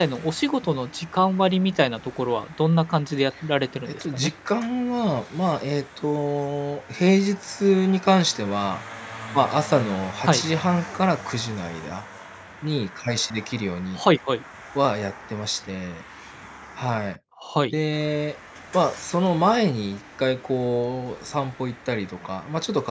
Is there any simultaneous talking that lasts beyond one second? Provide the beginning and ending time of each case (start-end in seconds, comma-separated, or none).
none